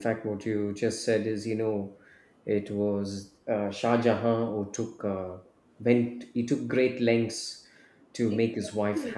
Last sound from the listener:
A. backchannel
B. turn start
B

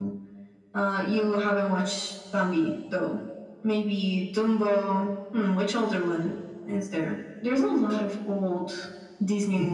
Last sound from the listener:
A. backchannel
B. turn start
B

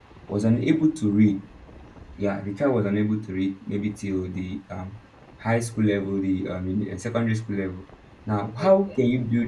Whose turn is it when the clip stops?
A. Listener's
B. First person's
B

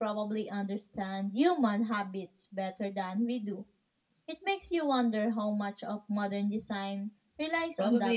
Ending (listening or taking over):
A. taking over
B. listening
A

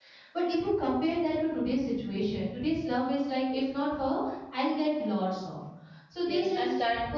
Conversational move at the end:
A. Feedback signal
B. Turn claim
B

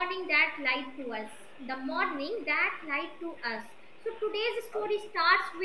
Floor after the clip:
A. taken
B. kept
B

